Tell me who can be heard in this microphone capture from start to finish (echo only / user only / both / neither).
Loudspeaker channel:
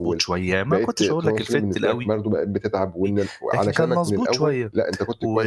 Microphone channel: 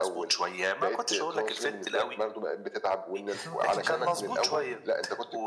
both